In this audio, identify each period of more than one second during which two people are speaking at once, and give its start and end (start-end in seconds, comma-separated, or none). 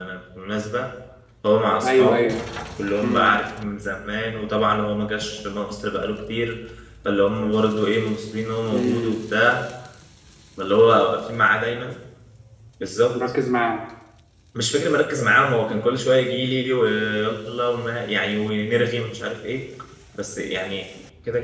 none